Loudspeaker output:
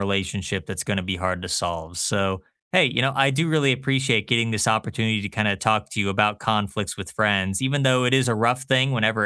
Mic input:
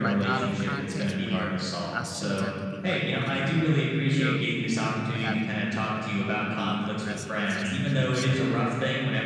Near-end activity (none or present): present